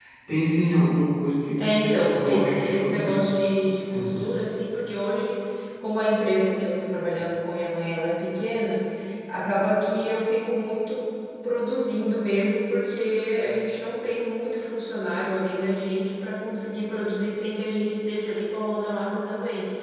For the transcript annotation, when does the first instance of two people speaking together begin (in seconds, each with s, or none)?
1.6 s